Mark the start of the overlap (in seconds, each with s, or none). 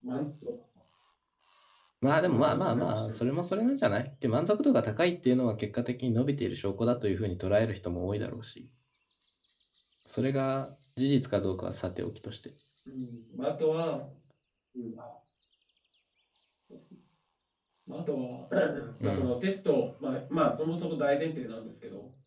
2.1 s